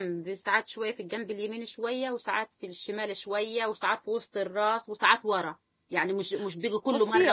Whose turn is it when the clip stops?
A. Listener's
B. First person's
A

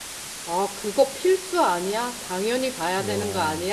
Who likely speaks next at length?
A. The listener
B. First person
B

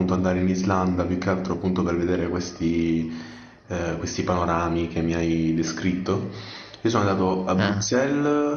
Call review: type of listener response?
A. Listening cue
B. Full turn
A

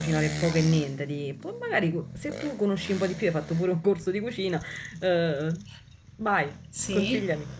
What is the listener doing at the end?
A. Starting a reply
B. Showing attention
A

